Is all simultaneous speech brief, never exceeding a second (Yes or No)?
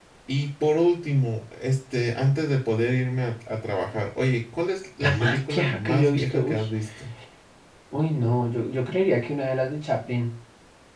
No